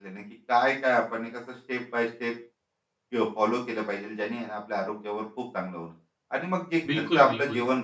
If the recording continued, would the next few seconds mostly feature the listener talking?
No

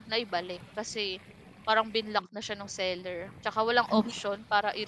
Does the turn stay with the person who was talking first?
Yes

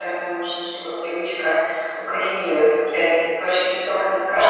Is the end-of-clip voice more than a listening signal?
Yes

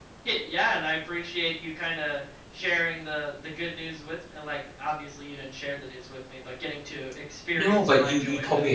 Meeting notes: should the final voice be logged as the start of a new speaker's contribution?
Yes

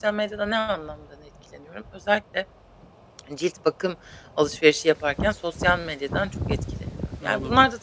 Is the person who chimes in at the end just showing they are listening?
Yes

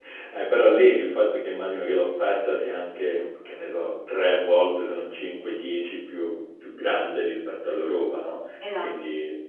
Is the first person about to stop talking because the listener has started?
No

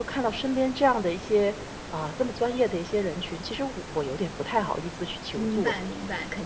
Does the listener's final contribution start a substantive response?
Yes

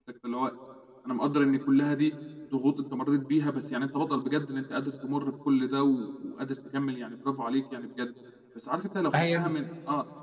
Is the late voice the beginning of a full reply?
No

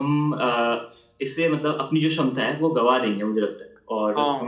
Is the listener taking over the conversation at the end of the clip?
No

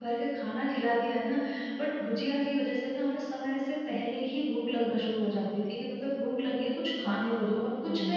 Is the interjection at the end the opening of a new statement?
Yes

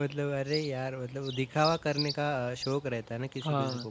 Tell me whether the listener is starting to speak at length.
No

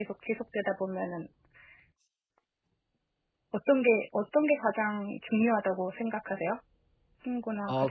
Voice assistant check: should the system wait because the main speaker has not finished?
No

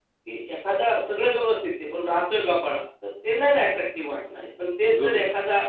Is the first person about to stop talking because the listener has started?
No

